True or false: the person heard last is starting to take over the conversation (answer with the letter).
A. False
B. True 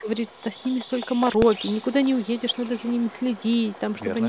A